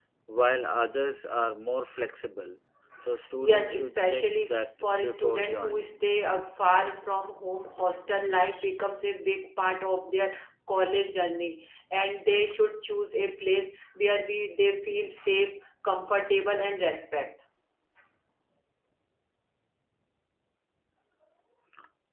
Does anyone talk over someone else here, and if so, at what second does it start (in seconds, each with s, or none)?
3.4 s